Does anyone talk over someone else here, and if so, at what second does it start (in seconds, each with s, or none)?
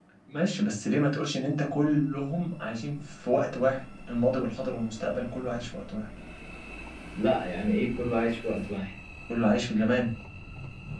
none